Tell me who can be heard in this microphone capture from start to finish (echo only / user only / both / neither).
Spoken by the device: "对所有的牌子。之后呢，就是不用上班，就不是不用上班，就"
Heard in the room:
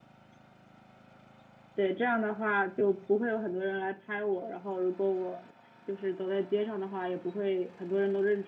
user only